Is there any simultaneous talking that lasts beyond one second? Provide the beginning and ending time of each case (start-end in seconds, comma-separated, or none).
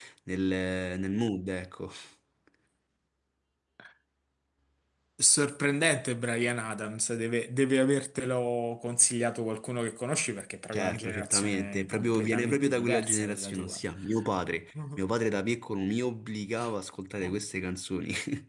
10.7-13.8